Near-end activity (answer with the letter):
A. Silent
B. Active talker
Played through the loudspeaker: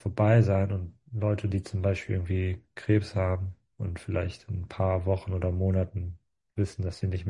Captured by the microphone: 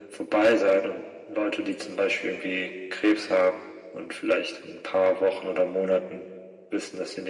A